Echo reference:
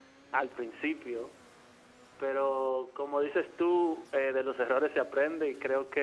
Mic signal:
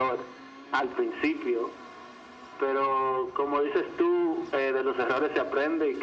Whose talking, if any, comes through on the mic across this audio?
echo only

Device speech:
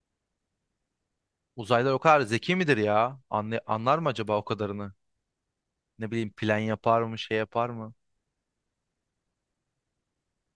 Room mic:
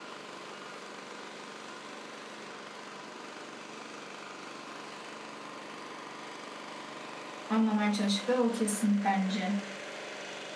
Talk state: user only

